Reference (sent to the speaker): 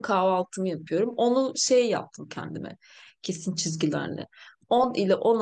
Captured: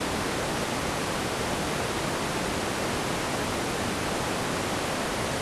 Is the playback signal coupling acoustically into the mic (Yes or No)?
No